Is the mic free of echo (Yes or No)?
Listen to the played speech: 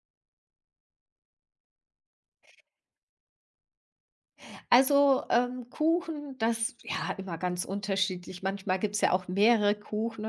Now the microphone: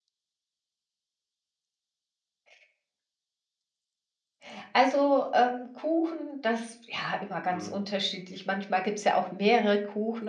No